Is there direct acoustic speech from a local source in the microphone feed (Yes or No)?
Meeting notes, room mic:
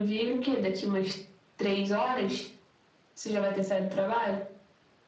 No